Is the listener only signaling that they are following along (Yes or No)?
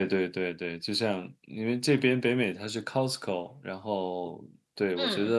Yes